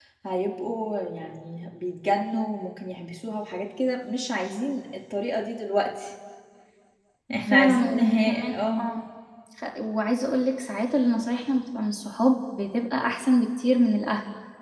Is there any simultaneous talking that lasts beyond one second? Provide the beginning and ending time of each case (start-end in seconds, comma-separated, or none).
7.5-8.9